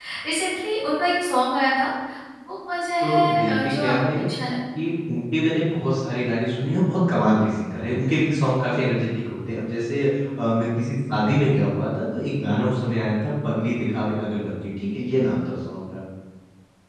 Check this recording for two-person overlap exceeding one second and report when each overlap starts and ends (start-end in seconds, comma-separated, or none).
3.0-4.2